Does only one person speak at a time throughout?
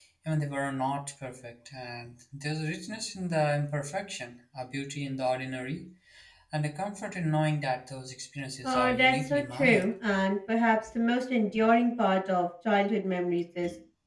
No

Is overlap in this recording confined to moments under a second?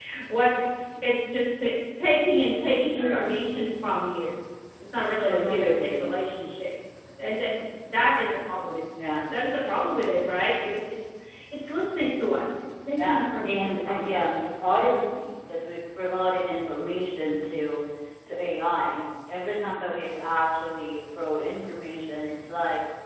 No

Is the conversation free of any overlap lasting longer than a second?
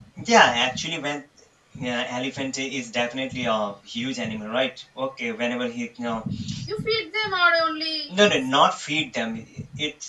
Yes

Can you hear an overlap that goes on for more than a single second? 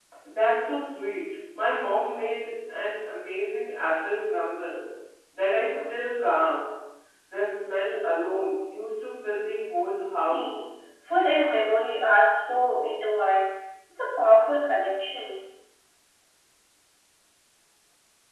No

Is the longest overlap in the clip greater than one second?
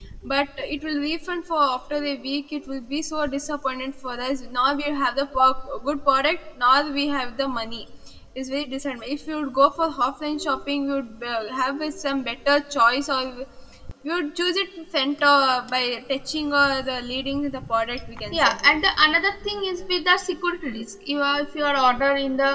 No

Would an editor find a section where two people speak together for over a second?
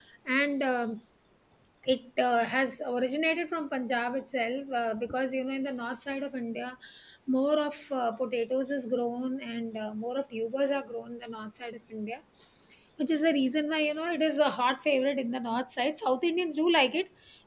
No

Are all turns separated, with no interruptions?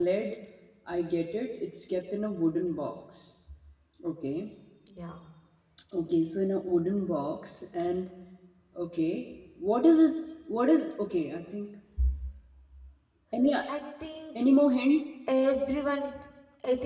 Yes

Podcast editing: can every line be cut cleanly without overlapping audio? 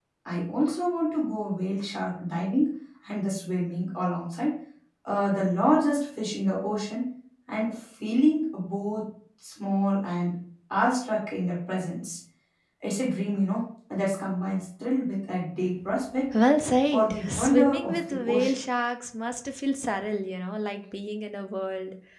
No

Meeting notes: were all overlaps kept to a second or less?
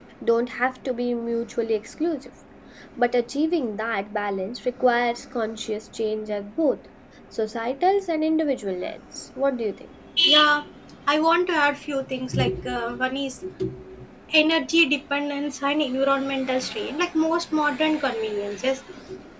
Yes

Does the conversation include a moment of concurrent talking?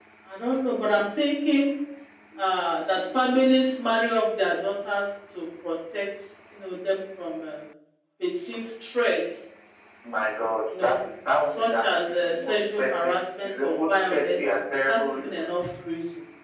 Yes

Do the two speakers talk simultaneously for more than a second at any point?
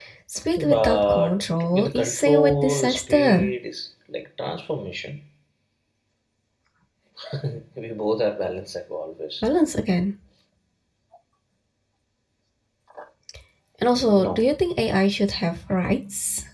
Yes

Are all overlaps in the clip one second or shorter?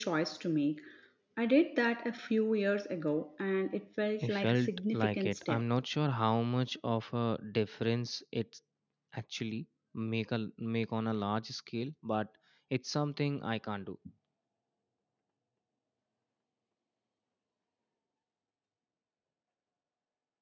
No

